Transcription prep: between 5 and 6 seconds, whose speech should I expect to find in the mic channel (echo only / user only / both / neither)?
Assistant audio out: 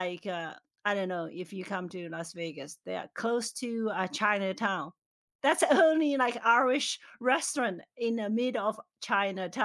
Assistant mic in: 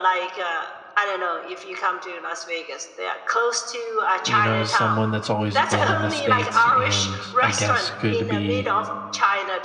both